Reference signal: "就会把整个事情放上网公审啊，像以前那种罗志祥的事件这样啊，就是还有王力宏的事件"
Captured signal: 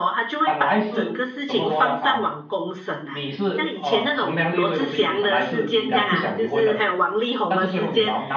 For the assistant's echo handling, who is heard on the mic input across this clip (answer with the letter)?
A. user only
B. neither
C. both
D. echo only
C